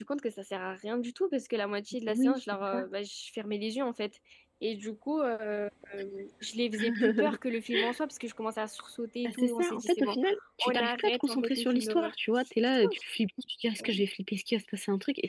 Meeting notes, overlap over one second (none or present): present